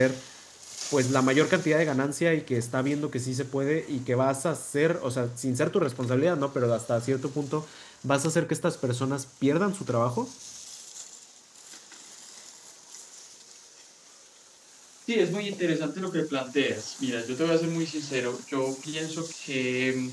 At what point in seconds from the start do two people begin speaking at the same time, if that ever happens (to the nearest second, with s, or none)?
none